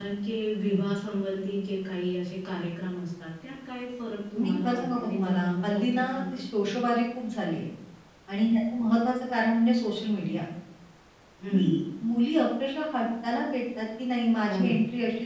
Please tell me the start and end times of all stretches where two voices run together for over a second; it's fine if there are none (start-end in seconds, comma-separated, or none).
4.4-6.4